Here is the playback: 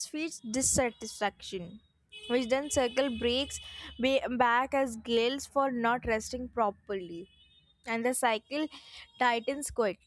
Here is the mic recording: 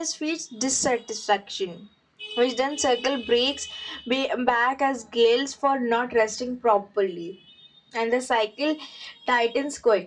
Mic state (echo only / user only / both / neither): echo only